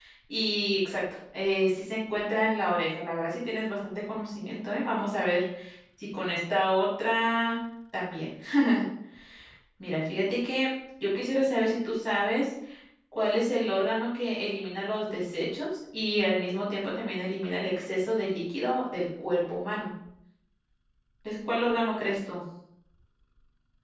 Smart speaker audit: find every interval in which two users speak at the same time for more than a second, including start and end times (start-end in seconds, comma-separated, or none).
none